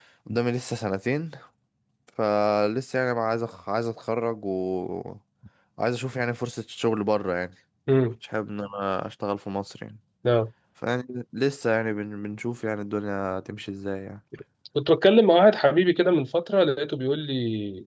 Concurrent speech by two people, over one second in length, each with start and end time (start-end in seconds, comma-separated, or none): none